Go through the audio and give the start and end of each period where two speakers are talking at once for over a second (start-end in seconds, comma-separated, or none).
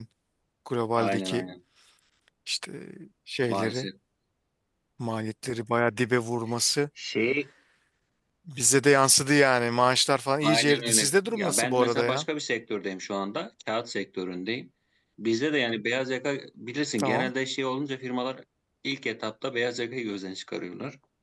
10.4-12.2